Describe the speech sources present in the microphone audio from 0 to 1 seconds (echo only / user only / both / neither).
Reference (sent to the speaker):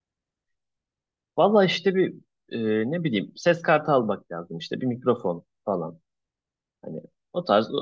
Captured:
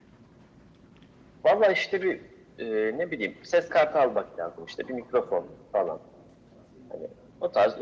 neither